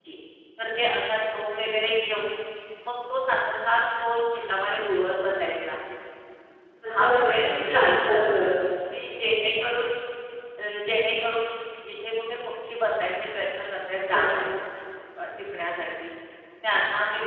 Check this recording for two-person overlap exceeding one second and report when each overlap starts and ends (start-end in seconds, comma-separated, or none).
7.0-8.2